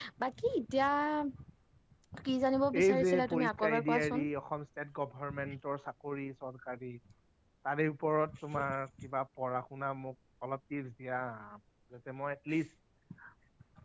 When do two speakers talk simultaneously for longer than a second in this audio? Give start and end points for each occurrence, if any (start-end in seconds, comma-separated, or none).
2.8-4.2